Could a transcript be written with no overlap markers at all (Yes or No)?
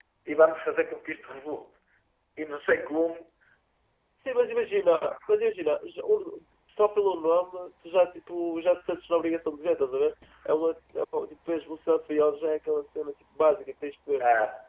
Yes